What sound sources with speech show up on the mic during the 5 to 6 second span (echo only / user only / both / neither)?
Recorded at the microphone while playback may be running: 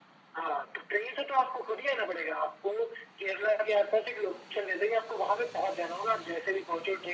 echo only